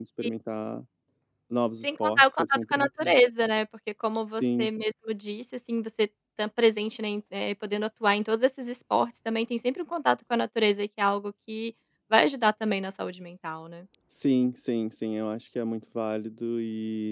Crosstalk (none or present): present